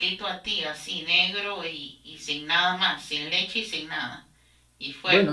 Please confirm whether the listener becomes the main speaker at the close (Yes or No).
Yes